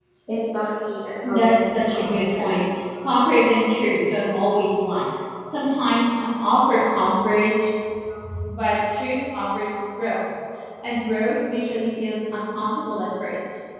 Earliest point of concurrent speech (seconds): 1.2 s

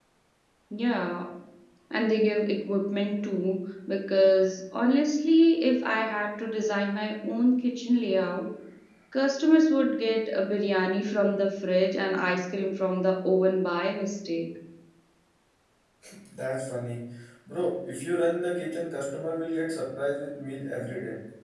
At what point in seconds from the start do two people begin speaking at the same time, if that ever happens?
none

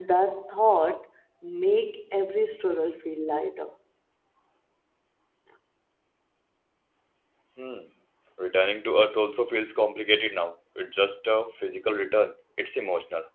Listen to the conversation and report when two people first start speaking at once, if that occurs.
none

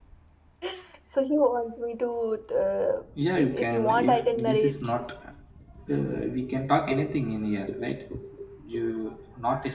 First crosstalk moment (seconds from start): 3.2 s

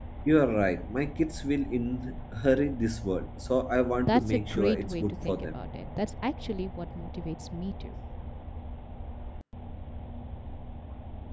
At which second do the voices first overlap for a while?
4.0 s

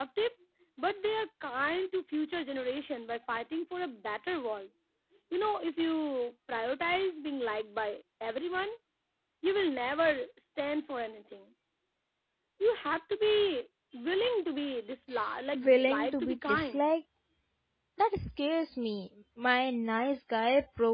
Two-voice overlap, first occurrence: 15.5 s

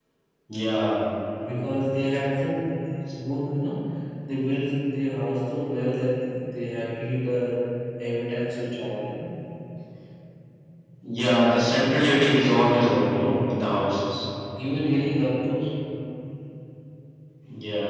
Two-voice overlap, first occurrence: none

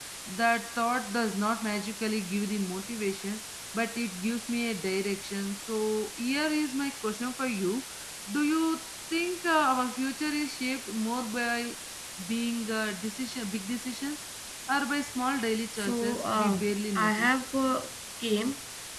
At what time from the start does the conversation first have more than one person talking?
15.8 s

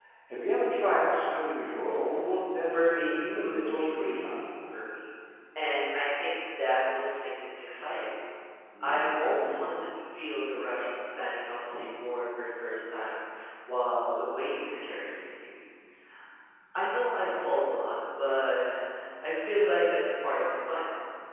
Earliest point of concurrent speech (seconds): 2.7 s

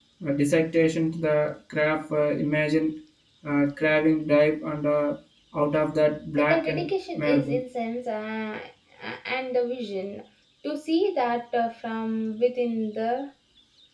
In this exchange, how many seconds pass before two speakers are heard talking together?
6.4 s

